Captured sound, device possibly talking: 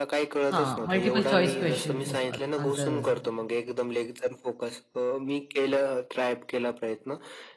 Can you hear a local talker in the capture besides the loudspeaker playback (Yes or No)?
Yes